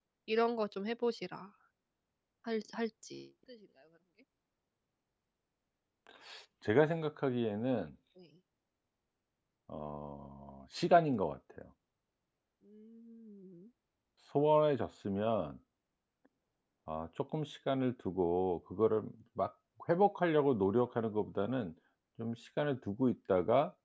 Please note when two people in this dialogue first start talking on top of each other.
none

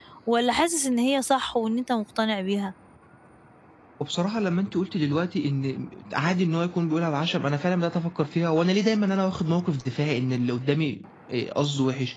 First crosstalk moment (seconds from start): none

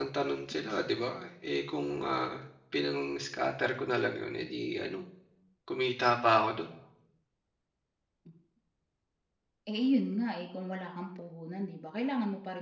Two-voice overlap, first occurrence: none

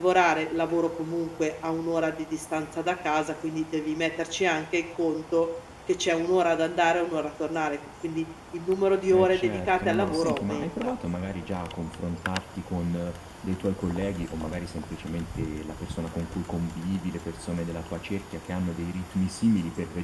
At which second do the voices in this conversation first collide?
9 s

